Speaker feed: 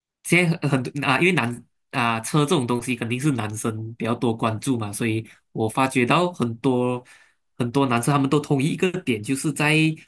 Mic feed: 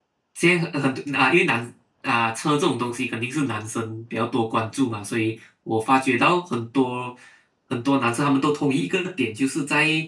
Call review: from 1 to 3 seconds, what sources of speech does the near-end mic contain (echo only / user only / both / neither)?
echo only